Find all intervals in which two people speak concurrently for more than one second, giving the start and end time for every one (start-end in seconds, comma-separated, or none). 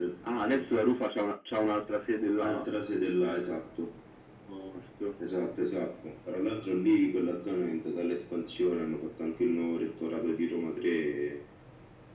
none